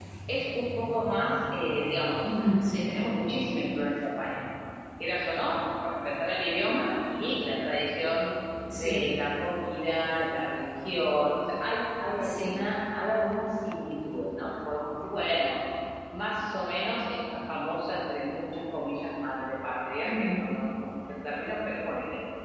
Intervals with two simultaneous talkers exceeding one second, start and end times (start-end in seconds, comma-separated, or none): none